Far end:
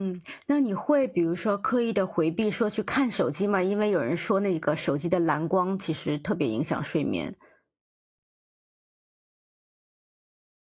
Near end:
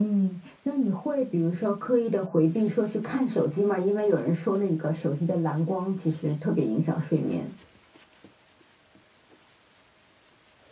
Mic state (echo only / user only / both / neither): echo only